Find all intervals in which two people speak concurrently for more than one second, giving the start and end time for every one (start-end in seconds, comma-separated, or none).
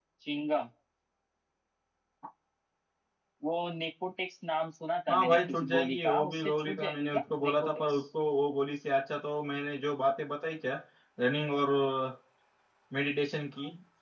5.1-7.7